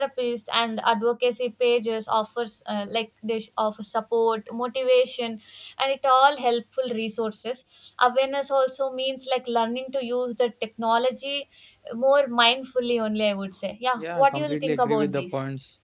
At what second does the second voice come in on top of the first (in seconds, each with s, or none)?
14.0 s